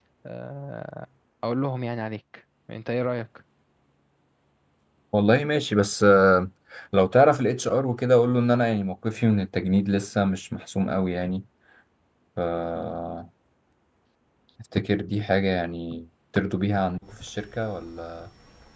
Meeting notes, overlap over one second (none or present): none